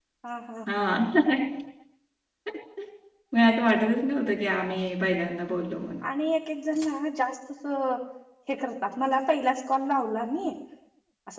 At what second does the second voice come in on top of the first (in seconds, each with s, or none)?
none